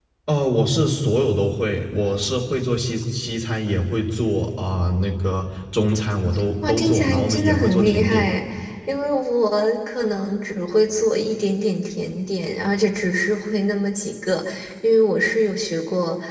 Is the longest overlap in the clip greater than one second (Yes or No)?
Yes